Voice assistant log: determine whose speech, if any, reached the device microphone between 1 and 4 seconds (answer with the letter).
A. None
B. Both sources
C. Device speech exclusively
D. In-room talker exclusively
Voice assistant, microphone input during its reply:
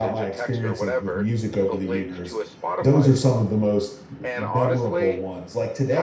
B